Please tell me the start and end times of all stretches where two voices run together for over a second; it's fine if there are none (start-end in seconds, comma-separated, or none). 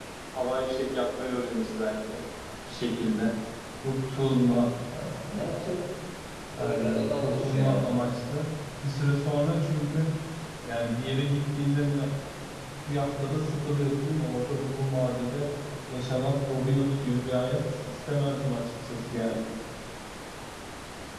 6.6-7.9